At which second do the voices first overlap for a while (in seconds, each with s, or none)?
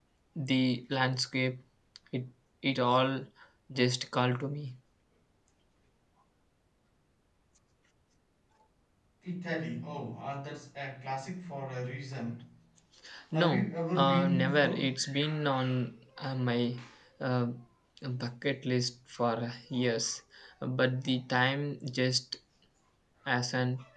13.3 s